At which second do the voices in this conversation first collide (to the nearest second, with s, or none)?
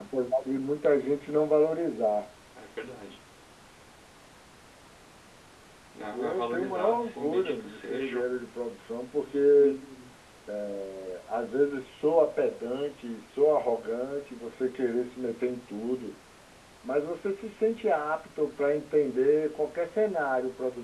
6 s